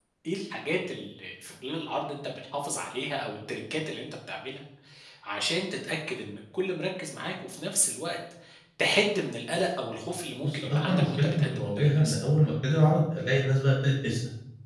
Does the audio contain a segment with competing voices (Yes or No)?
Yes